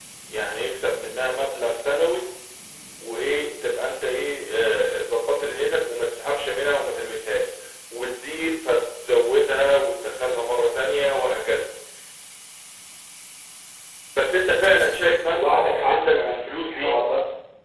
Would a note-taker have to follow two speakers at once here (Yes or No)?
Yes